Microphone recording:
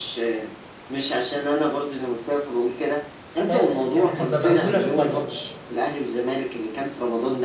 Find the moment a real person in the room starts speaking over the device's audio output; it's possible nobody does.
3 s

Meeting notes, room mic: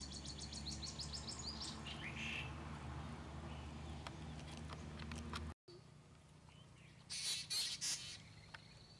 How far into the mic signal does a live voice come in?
none

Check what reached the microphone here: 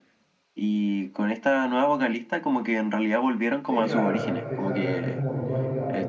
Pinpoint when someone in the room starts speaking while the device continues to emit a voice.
4 s

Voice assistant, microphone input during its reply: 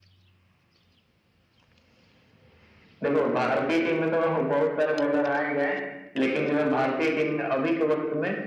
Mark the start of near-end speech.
none

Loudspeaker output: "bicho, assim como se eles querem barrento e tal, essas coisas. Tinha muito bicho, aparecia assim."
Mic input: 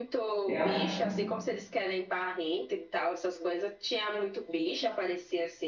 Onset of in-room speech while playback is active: 0 s

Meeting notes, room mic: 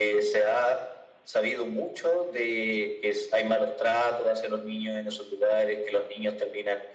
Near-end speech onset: none

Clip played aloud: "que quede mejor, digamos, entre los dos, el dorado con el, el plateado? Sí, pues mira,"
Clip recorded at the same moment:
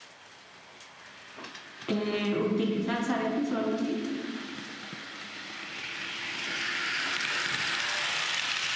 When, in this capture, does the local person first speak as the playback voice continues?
2 s

